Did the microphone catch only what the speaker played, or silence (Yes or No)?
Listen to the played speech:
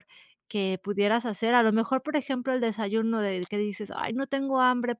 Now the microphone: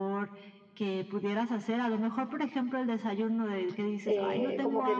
No